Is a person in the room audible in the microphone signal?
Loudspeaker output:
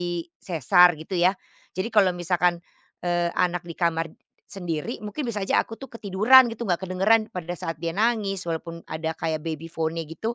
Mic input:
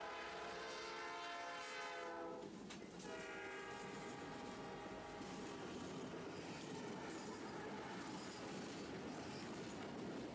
No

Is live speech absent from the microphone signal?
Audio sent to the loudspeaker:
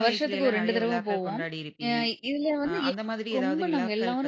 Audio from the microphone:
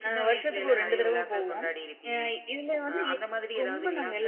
No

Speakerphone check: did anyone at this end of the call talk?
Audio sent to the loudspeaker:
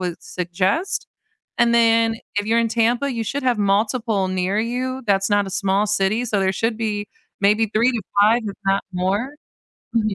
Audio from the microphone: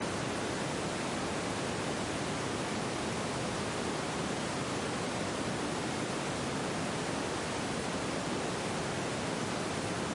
No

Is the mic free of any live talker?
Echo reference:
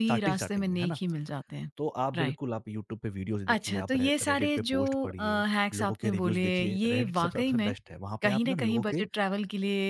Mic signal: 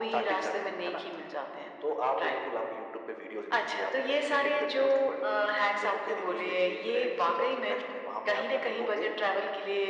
Yes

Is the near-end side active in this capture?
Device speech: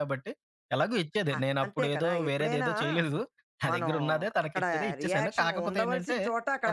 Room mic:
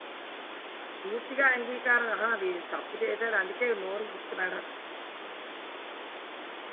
Yes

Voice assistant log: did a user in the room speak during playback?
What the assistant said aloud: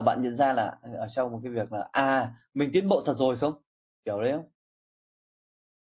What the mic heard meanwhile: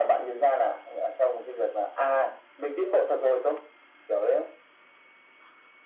No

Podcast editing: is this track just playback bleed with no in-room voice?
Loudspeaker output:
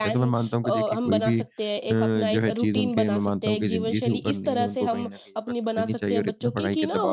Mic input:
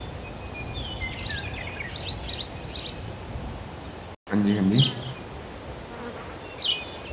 No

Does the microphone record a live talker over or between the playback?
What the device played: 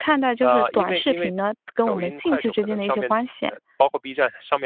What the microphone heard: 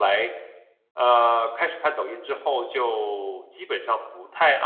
Yes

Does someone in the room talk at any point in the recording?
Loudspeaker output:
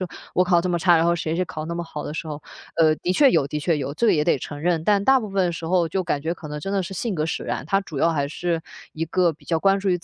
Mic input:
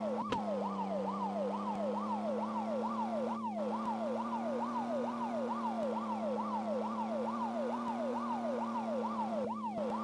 No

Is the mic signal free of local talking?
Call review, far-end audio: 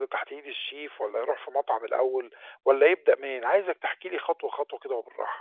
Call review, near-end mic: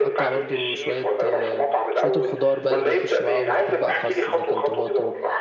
No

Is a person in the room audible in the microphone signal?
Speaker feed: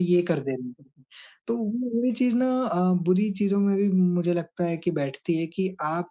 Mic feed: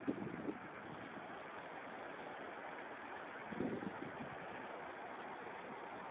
No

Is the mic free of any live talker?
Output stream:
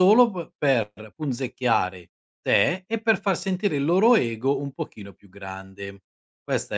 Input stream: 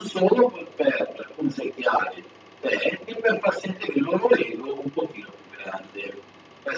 Yes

